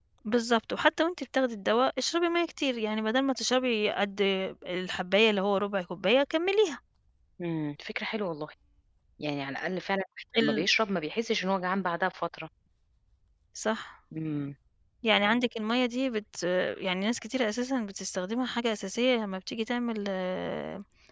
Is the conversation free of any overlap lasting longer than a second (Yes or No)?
Yes